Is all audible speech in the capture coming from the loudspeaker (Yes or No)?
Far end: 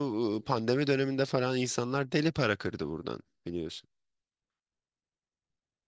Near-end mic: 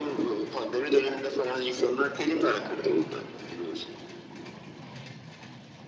Yes